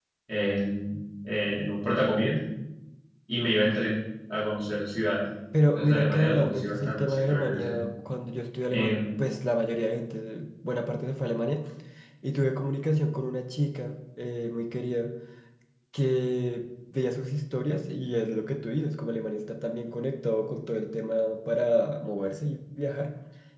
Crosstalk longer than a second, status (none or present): present